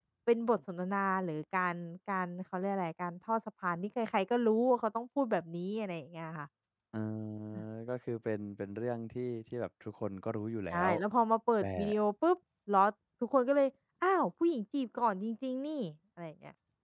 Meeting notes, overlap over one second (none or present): none